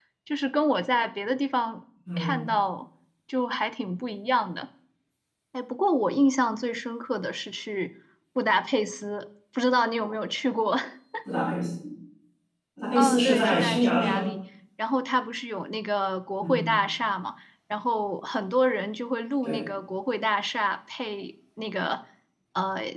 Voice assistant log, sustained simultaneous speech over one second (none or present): present